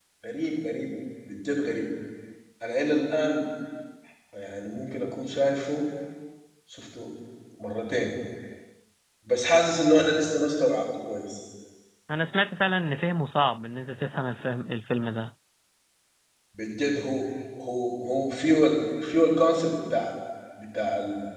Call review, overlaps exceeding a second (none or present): none